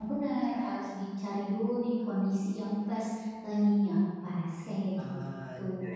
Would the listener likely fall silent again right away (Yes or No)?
No